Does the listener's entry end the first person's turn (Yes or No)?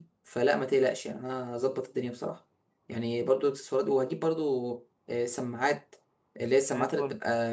No